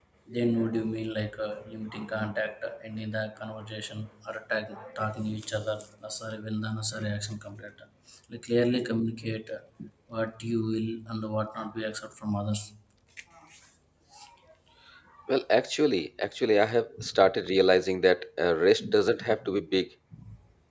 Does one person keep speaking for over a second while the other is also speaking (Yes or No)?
No